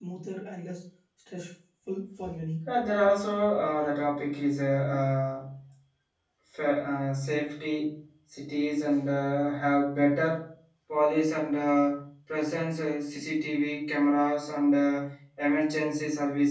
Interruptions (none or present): none